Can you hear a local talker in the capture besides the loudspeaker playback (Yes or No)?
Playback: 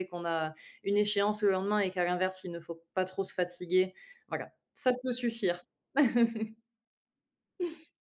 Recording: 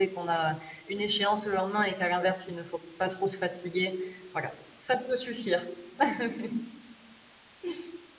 No